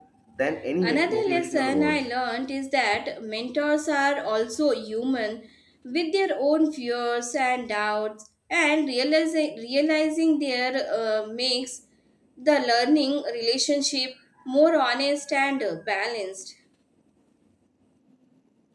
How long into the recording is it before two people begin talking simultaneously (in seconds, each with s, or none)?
0.8 s